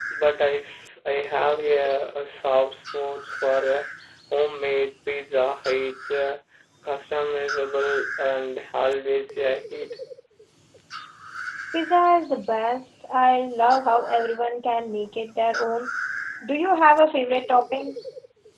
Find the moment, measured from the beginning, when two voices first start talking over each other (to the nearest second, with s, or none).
none